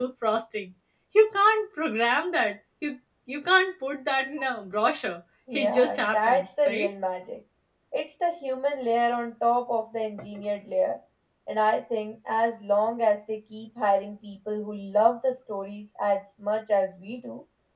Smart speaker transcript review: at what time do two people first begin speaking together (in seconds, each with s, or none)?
5.5 s